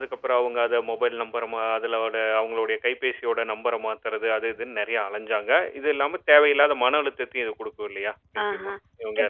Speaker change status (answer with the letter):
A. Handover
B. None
A